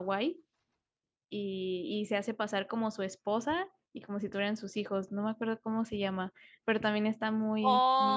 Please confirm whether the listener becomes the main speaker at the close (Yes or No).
Yes